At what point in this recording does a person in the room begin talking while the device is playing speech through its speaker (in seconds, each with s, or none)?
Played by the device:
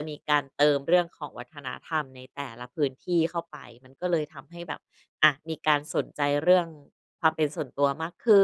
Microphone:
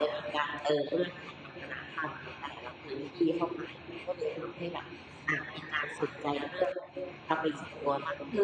none